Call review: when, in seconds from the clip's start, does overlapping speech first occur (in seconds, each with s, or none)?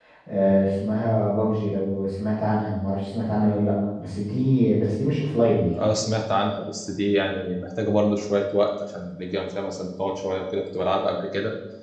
none